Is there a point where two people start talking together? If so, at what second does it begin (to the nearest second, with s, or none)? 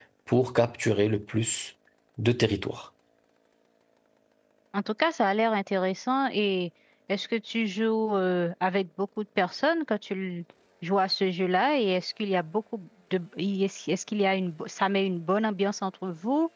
none